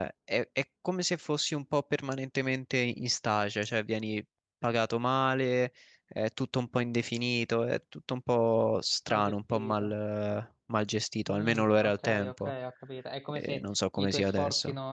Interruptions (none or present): present